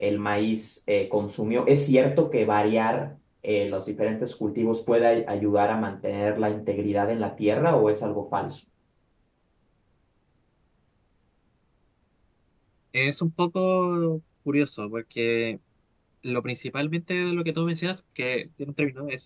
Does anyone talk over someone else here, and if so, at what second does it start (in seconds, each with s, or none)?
none